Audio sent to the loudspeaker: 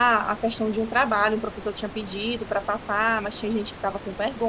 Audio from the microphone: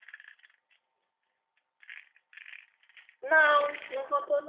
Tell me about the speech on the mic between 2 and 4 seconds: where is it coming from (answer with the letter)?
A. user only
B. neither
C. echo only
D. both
A